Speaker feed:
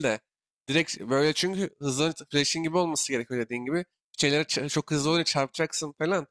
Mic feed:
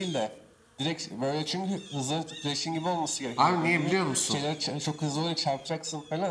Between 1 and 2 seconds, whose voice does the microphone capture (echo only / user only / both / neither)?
echo only